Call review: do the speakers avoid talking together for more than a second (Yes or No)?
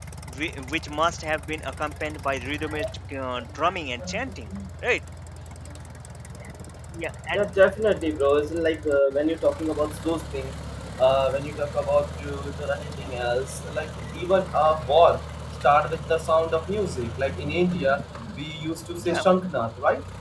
Yes